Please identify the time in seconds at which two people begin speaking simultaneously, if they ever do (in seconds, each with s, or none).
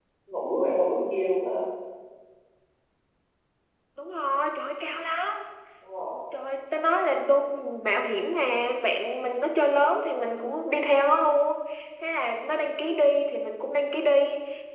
none